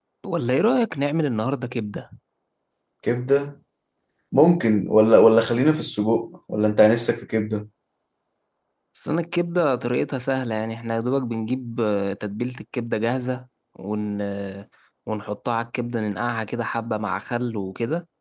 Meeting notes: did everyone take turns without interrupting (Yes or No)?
Yes